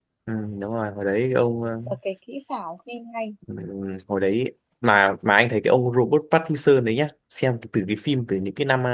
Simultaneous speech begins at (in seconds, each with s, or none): none